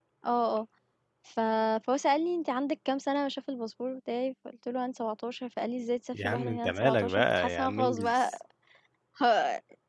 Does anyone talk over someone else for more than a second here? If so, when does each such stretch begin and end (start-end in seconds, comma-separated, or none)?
6.1-8.3